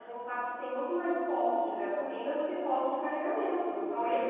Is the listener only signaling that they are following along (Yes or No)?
Yes